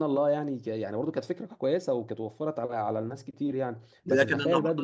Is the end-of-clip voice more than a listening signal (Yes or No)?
Yes